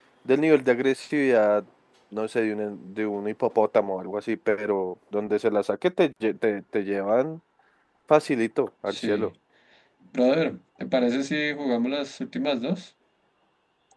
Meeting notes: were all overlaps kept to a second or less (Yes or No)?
Yes